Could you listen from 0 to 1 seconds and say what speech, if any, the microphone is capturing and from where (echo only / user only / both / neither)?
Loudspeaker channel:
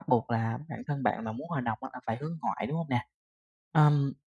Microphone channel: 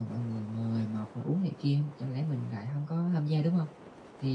user only